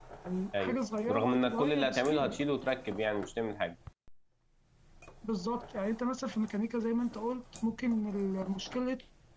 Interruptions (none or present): present